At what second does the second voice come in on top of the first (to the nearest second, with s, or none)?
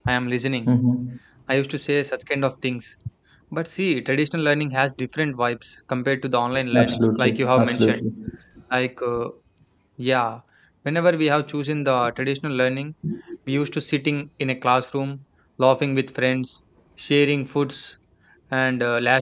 7 s